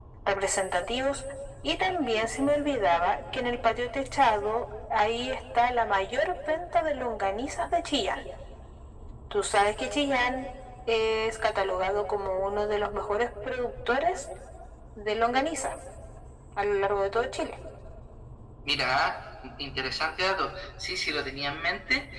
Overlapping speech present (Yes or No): No